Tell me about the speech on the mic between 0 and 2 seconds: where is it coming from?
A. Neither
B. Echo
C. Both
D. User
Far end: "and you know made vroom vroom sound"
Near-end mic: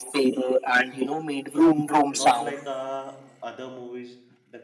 B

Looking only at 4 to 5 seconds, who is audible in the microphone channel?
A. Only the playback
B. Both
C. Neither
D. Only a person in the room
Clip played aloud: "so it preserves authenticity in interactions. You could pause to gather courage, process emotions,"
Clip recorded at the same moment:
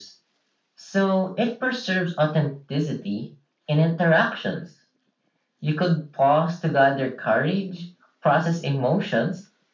A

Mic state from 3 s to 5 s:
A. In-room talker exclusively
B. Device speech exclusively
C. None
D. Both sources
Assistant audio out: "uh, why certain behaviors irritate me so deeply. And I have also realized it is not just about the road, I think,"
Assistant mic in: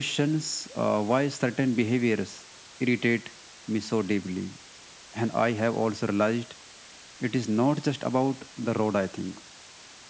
B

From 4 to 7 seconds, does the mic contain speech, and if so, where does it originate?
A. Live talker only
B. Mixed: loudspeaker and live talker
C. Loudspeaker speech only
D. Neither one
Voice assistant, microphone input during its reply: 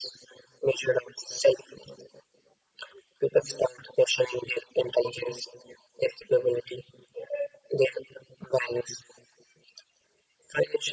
C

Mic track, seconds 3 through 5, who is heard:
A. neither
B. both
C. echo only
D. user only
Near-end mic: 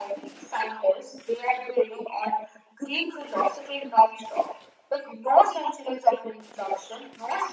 C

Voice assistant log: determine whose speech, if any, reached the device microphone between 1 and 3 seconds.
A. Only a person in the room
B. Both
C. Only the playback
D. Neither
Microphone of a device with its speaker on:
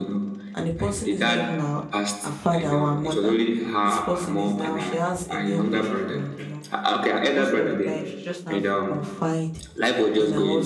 B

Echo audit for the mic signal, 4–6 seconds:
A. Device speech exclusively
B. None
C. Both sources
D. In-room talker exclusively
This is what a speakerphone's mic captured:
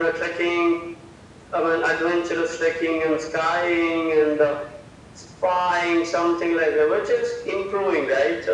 A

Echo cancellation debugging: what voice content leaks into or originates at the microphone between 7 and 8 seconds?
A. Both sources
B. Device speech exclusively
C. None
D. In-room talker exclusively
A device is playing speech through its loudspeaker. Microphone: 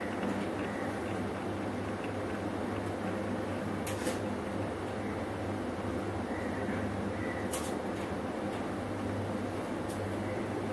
C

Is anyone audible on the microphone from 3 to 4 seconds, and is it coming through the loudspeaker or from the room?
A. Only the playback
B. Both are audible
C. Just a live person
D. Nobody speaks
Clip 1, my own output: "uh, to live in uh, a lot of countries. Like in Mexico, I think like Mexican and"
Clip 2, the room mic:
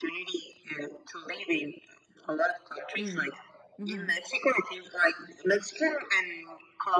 B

